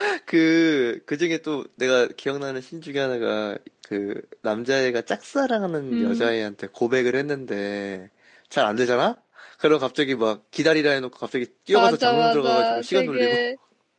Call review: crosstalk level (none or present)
present